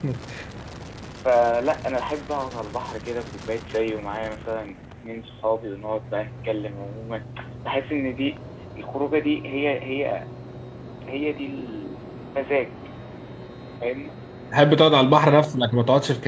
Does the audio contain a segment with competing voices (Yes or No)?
No